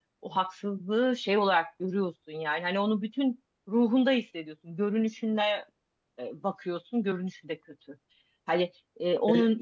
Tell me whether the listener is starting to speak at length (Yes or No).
No